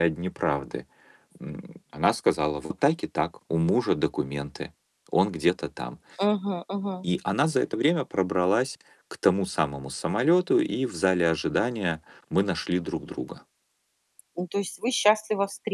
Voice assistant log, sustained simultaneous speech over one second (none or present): none